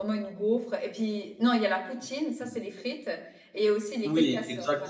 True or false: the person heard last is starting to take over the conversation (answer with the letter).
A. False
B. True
B